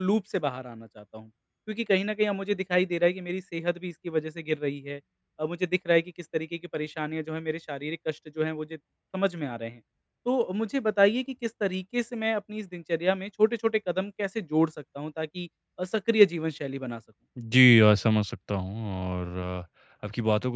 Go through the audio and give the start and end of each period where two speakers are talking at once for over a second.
none

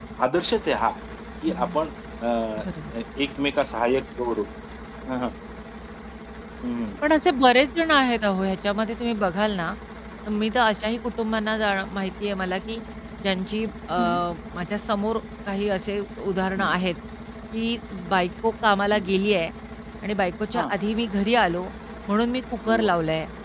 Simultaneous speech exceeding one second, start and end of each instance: none

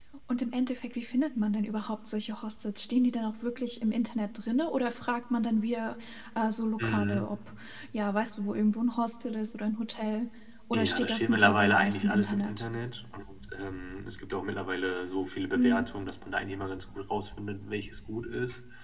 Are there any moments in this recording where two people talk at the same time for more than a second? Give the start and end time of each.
10.7-12.6

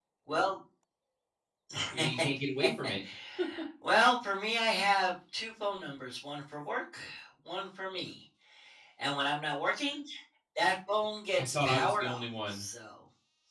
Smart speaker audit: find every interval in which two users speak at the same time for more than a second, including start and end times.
11.4-12.6

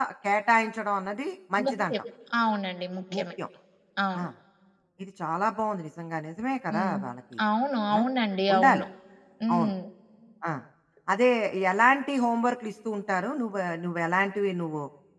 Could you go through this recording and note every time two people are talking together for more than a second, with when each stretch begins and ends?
none

